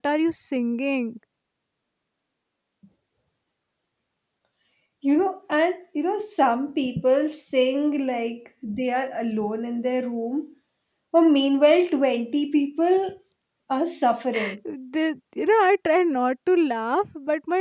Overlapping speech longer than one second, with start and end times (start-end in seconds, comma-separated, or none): none